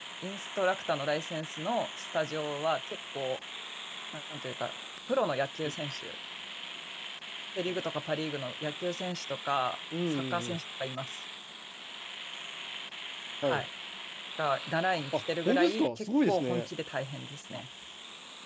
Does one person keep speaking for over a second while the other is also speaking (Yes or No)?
Yes